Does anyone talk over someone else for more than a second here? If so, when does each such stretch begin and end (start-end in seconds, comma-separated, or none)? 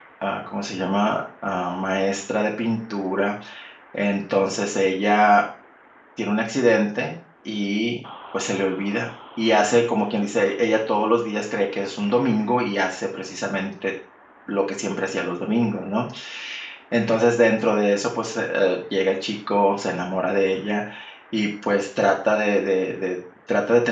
none